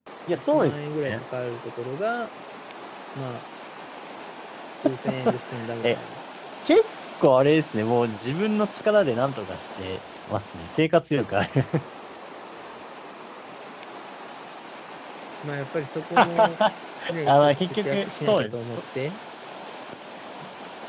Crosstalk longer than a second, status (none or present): present